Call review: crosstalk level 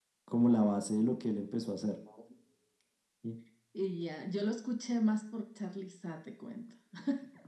none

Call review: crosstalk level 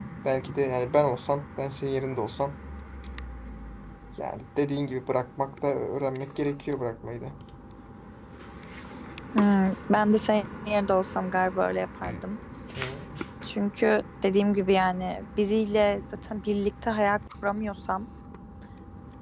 none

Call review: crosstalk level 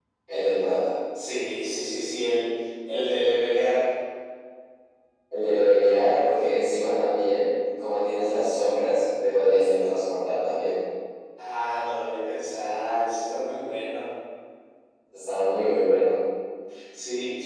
none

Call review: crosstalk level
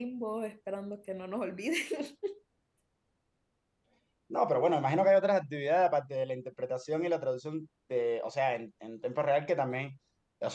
none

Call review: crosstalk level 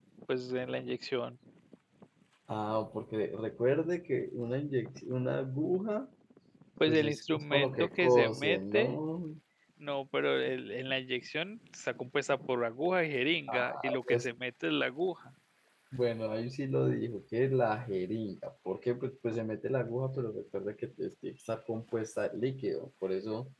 present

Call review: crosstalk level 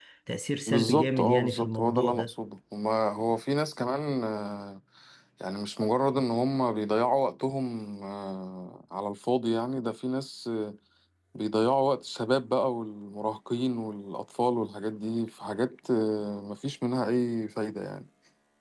present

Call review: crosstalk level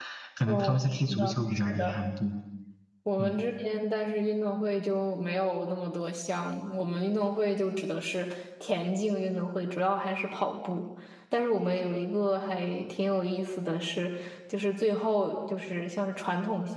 present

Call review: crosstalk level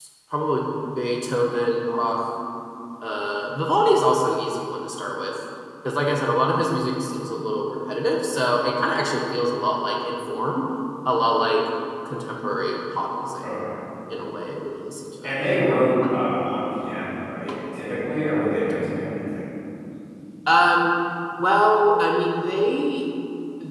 none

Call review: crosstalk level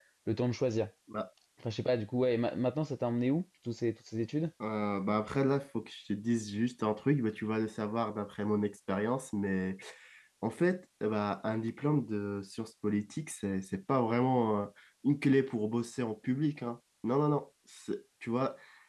none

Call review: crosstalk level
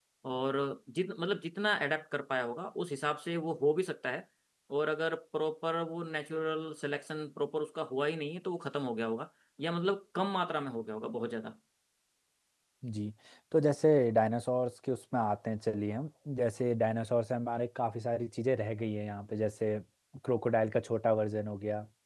none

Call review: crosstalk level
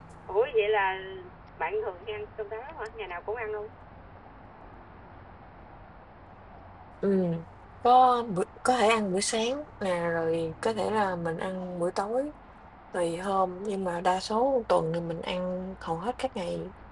none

